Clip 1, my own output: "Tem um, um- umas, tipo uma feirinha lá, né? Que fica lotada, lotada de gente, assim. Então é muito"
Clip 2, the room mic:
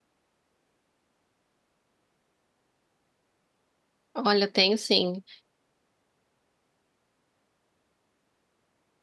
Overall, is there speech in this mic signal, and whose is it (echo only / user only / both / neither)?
user only